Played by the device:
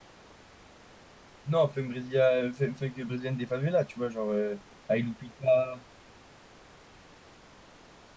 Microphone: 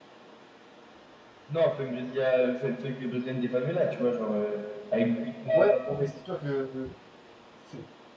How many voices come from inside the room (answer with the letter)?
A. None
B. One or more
B